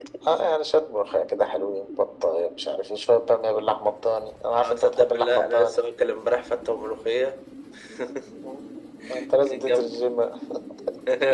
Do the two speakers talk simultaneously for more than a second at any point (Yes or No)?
Yes